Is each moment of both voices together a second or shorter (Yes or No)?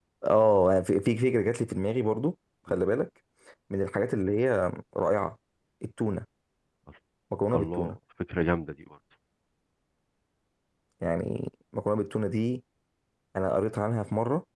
Yes